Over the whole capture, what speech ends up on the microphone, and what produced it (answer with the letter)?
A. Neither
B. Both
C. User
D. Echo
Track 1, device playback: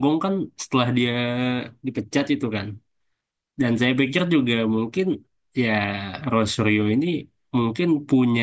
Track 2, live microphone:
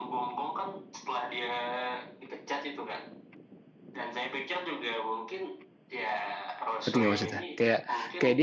B